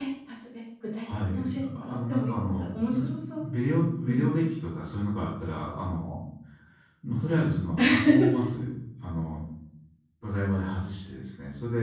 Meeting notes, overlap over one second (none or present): present